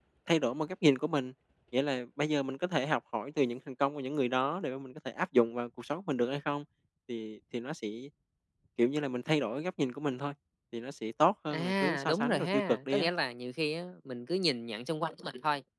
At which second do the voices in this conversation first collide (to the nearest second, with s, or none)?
12 s